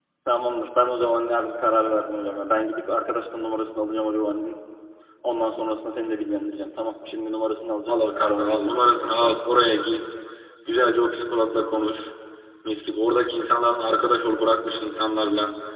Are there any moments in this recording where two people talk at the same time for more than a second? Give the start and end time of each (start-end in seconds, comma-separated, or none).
7.9-9.3